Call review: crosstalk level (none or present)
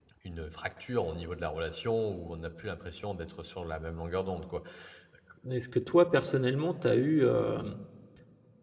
none